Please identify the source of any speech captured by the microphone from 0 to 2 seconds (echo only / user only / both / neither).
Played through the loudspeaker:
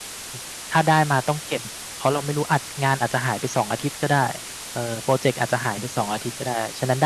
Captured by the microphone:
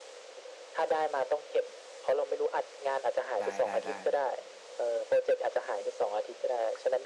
echo only